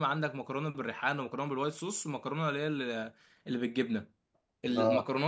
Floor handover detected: No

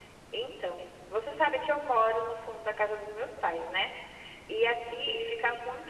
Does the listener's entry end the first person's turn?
No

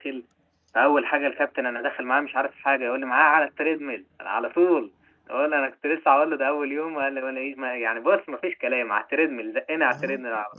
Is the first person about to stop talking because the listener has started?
Yes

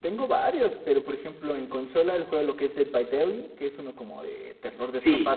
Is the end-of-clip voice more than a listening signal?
No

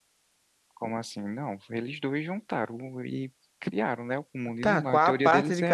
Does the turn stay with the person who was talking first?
No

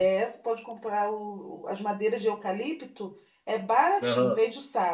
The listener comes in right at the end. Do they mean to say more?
No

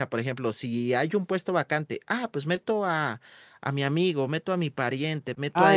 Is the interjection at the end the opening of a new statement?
Yes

